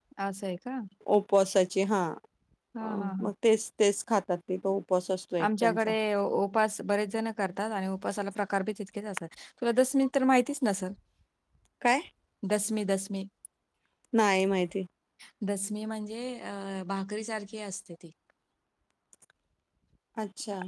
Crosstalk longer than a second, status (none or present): none